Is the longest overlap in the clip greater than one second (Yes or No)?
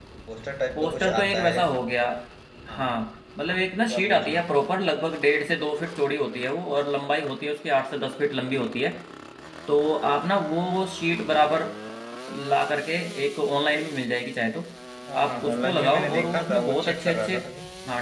Yes